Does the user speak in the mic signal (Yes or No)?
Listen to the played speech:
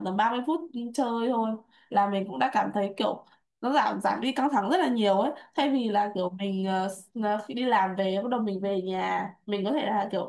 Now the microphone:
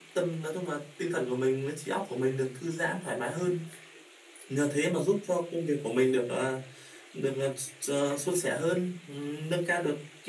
Yes